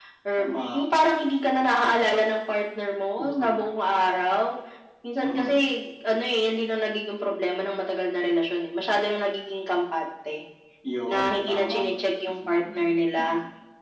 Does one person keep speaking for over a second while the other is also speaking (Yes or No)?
Yes